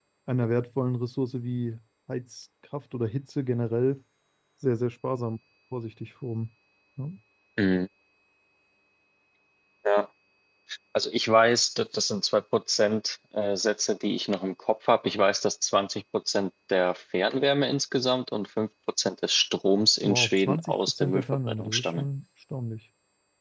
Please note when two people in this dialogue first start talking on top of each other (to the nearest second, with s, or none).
20 s